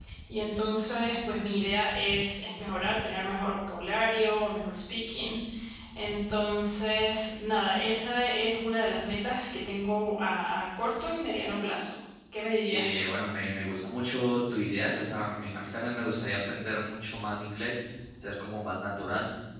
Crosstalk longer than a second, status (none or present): none